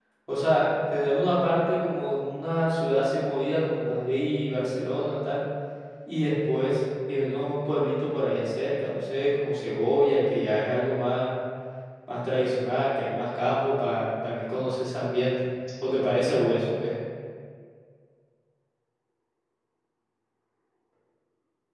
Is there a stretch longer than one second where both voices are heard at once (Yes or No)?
No